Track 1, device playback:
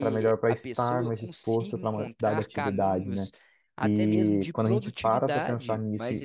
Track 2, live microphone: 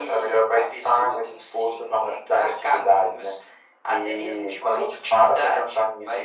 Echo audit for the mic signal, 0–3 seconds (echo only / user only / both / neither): echo only